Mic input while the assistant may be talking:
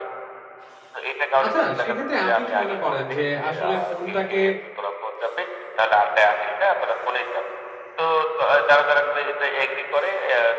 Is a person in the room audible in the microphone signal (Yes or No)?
Yes